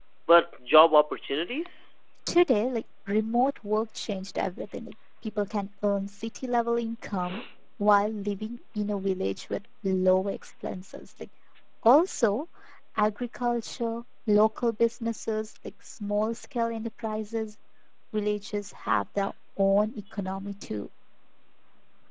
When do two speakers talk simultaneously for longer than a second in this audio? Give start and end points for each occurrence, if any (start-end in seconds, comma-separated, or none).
none